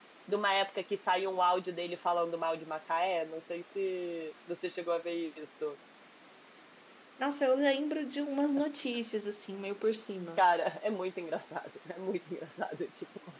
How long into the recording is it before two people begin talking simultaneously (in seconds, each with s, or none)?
none